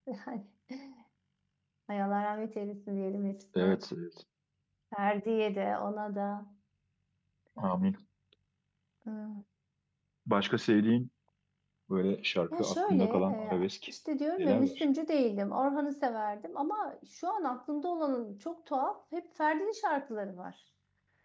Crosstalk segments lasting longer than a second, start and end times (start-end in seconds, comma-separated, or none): 12.5-13.9